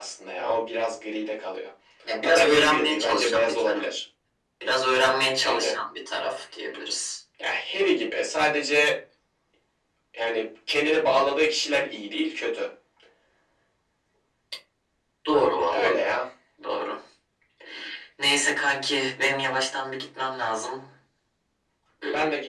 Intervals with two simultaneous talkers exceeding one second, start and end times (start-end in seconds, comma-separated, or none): 2.2-3.9